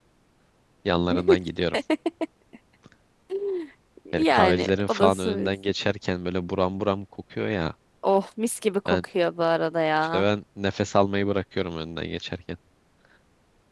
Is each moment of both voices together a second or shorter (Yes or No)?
No